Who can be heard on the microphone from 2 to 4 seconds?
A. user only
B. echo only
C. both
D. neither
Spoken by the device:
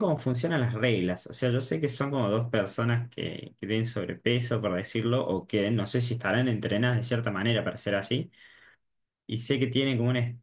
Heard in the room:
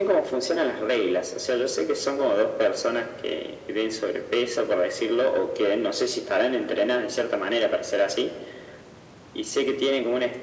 B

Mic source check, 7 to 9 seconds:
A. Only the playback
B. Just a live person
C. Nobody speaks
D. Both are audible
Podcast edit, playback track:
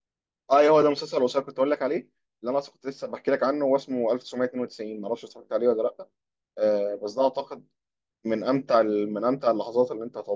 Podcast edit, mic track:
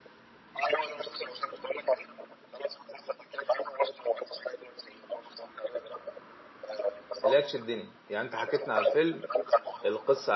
D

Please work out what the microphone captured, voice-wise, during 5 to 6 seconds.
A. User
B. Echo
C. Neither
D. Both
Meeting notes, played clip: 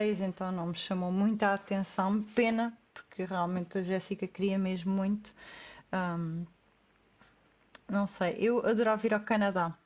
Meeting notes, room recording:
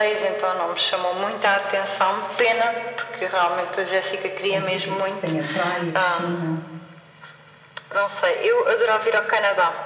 D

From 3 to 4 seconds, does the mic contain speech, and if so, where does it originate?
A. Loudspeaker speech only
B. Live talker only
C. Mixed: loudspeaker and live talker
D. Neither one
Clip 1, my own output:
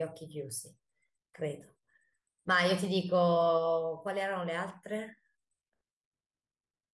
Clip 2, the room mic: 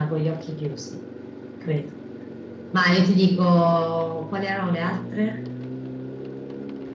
A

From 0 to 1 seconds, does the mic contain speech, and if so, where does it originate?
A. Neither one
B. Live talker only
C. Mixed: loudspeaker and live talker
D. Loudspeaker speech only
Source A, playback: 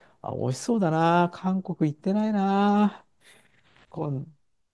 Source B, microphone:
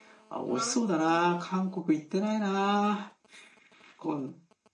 C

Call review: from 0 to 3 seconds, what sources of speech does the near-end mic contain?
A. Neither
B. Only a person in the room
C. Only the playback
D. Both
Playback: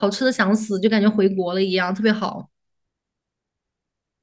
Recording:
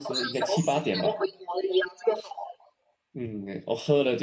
D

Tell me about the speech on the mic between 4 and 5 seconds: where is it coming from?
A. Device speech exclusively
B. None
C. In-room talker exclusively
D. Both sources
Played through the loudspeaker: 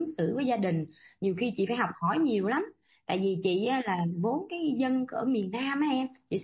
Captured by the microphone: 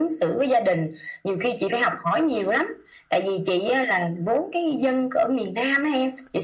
A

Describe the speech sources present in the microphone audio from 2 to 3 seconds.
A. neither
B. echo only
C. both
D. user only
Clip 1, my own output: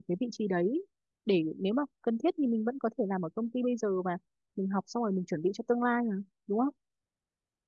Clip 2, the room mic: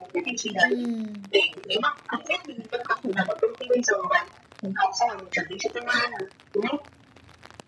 B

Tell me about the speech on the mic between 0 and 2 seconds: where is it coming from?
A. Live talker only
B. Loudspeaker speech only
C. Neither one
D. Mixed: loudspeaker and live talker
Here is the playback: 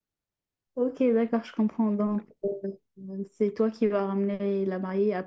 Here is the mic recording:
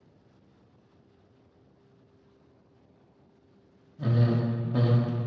C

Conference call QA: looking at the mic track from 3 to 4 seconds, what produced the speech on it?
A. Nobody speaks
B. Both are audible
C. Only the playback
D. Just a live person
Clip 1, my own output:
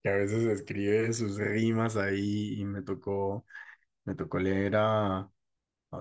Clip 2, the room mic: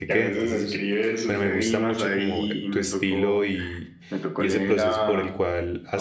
B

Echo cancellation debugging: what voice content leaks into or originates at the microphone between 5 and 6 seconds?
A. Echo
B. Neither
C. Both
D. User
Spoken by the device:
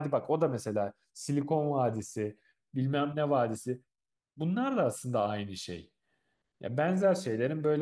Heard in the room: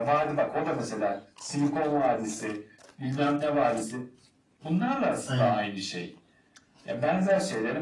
C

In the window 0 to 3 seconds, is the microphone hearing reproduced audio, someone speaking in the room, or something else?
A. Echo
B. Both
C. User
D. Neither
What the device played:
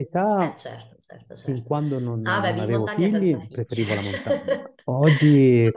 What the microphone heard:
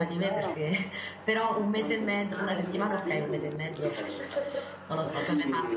B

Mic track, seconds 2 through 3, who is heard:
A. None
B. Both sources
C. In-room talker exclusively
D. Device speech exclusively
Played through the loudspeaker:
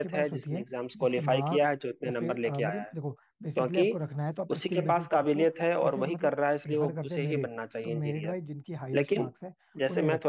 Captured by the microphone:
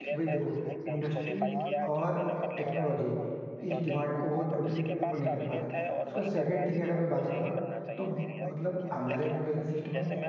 B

